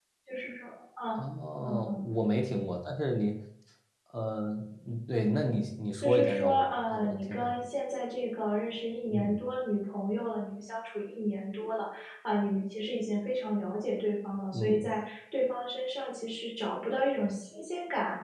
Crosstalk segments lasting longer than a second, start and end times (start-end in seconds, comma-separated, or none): 6.0-7.5